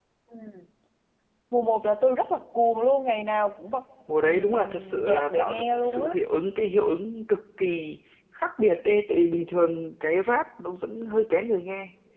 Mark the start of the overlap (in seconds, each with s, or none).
4.2 s